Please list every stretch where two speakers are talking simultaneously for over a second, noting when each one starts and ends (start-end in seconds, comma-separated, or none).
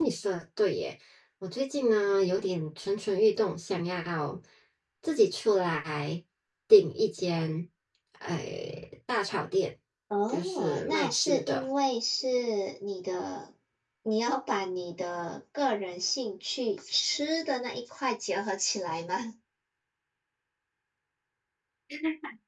10.3-11.7